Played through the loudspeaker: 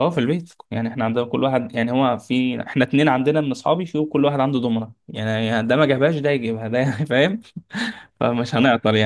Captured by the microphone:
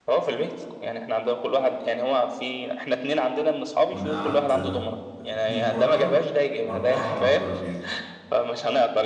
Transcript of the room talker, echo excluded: ونقعد آه، اتنين بره واربعة على الترابيزة

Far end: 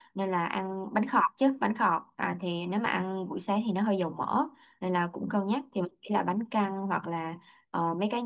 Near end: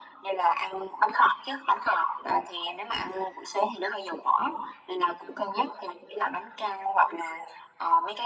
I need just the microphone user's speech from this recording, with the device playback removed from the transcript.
none

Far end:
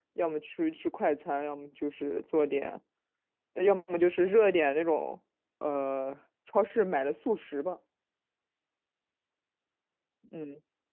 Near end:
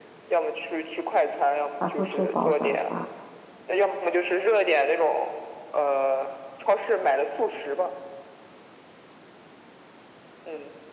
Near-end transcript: 还会做煲仔饭。

